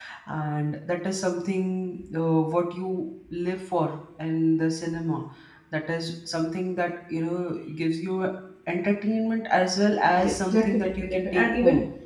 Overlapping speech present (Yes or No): Yes